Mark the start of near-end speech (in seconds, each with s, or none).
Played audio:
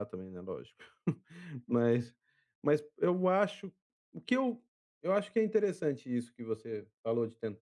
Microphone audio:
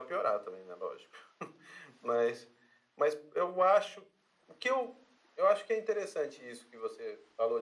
none